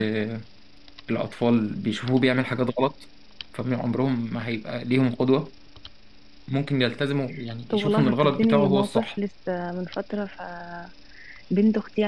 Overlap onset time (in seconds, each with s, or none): 7.7 s